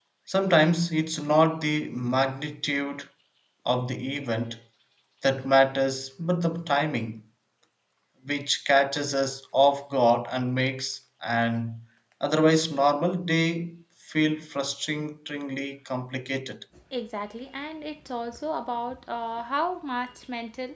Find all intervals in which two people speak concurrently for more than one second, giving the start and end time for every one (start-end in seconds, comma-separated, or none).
none